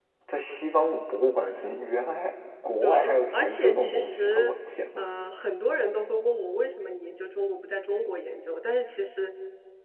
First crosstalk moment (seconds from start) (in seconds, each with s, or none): 2.8 s